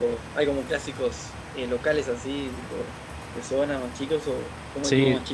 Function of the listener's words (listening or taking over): taking over